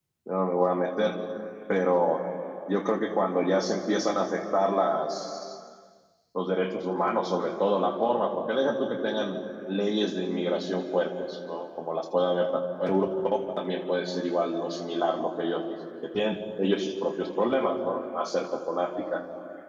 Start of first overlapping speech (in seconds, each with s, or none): none